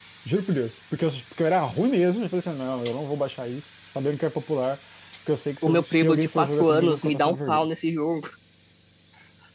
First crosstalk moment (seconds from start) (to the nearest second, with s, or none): 6 s